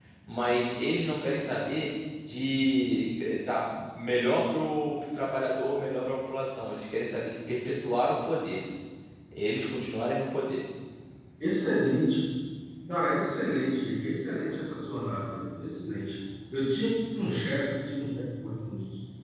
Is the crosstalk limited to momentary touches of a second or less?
Yes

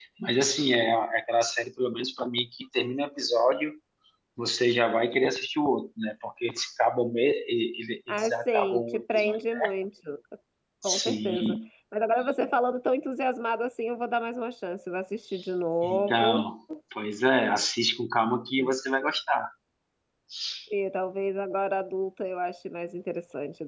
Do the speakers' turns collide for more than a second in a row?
Yes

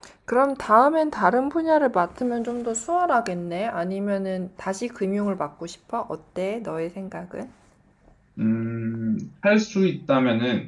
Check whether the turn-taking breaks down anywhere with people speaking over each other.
No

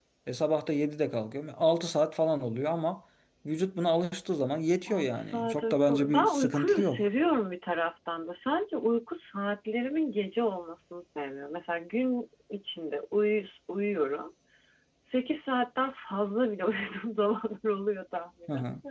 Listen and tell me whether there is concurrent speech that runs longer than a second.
Yes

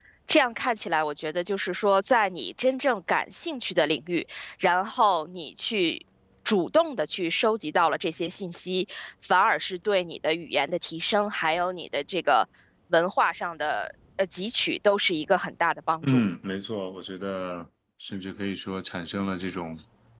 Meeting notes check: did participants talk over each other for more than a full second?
No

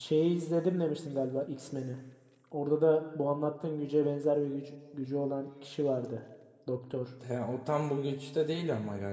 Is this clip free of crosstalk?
Yes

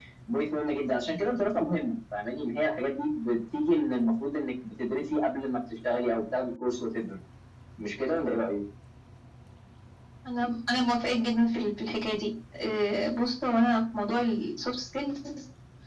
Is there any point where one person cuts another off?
No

